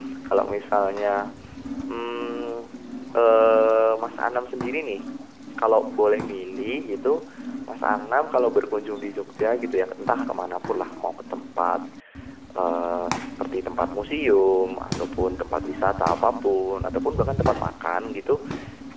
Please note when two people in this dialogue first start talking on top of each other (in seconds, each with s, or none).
none